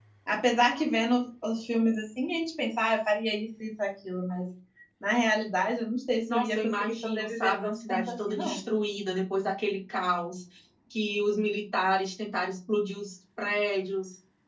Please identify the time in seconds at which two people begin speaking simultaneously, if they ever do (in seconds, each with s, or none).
6.3 s